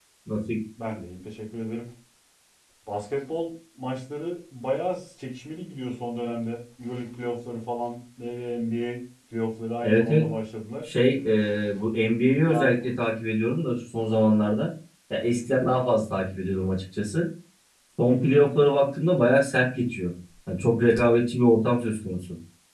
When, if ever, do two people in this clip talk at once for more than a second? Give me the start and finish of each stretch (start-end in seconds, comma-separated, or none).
none